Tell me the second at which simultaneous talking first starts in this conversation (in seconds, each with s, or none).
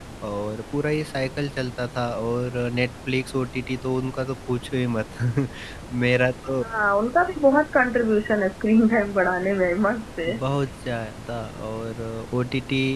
none